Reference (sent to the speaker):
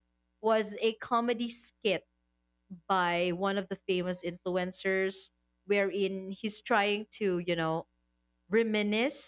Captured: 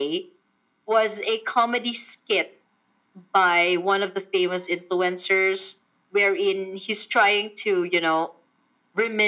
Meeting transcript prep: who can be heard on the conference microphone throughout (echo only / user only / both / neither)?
echo only